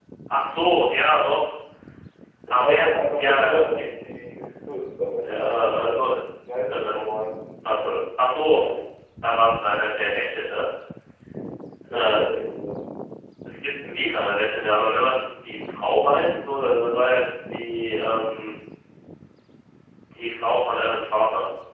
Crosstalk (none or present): present